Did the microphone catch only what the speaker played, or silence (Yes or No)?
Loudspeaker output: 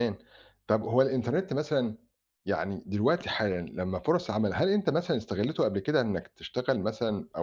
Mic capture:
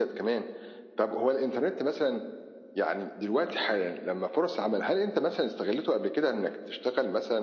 Yes